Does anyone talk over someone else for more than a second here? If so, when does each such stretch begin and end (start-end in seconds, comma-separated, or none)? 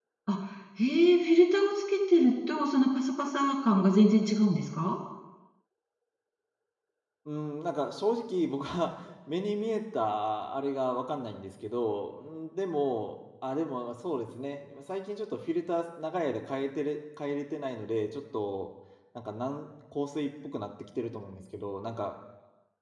none